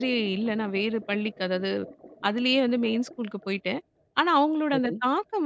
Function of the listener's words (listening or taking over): listening